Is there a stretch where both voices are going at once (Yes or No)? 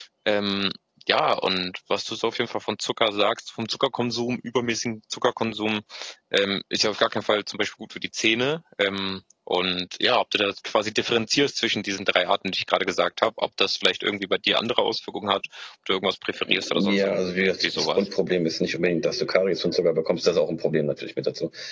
Yes